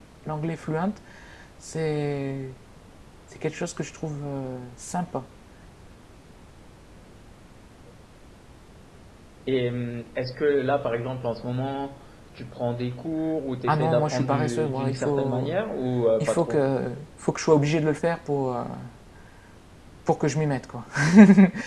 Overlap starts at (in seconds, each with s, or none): 13.7 s